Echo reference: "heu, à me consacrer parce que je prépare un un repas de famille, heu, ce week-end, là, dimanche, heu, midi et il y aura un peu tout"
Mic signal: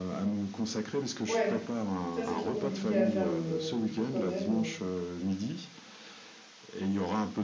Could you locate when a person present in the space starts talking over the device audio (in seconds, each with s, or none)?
1.3 s